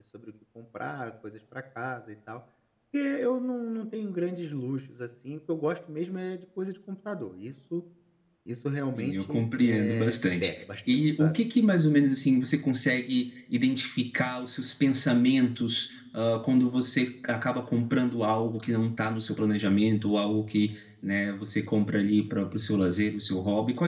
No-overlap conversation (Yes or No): No